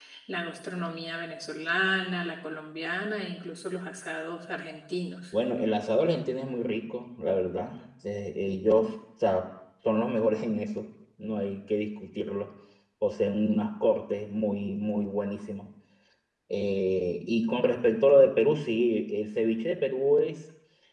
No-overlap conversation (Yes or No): Yes